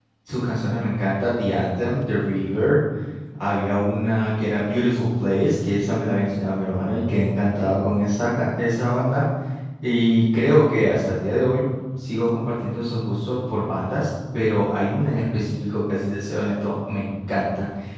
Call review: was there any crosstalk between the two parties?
No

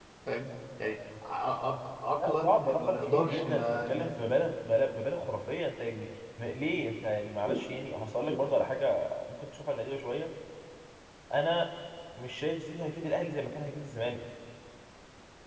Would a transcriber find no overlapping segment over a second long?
No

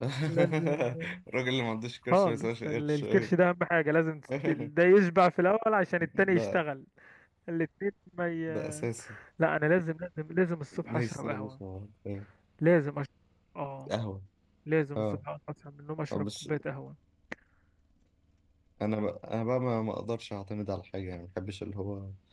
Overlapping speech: Yes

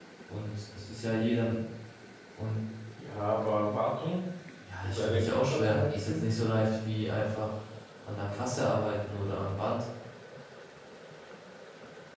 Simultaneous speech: Yes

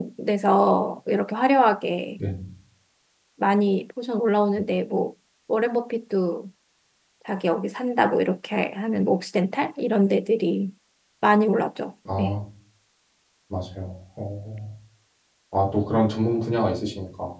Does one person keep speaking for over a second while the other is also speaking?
No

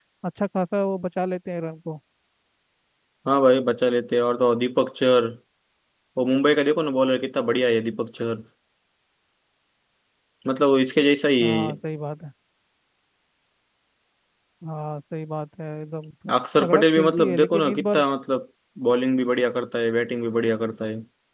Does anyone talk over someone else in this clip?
Yes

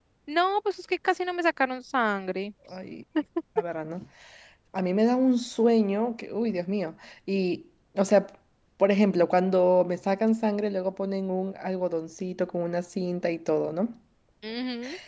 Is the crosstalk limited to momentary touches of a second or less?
Yes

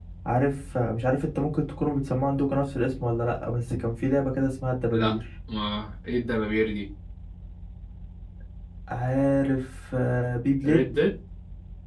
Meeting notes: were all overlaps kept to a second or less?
Yes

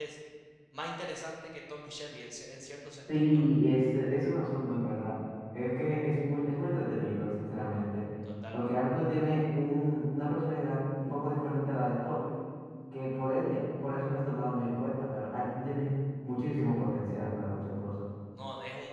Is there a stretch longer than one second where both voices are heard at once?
No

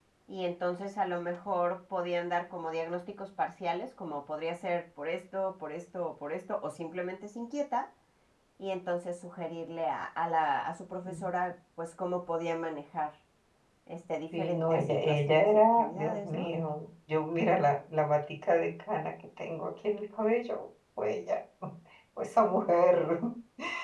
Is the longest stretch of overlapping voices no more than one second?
No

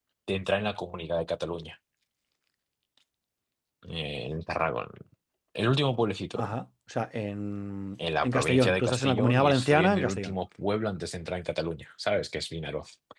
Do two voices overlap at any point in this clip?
Yes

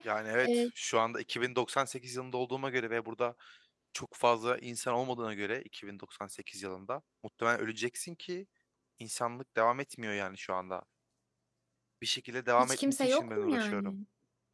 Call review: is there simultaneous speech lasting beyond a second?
Yes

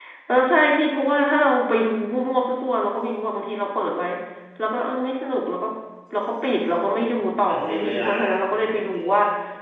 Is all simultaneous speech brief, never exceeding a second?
No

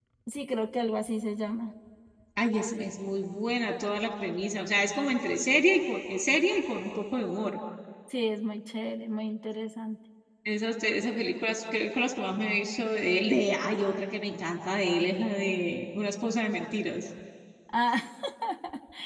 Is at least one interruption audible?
No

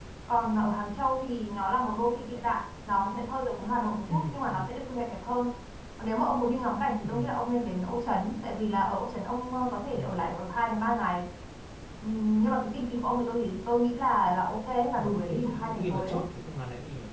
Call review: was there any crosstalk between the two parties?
Yes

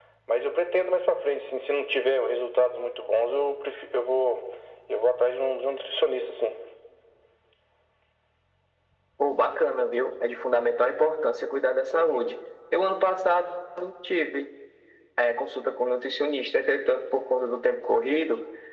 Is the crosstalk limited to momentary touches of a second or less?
Yes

